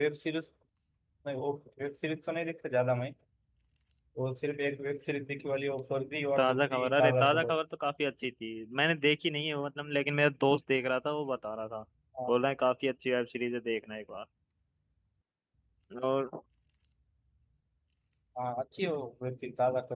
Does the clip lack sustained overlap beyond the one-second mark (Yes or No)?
No